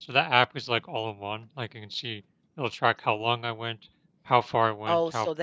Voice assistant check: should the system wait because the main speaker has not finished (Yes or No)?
No